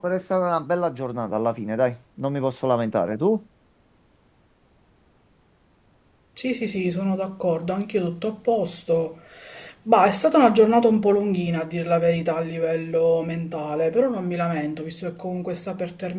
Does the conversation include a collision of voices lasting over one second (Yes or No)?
No